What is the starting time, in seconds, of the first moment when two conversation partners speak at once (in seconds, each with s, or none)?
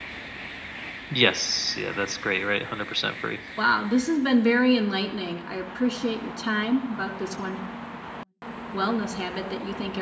none